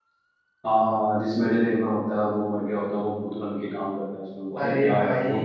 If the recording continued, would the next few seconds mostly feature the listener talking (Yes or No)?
Yes